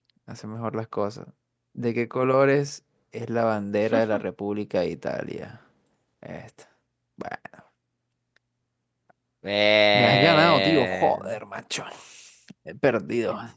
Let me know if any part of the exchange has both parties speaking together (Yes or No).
Yes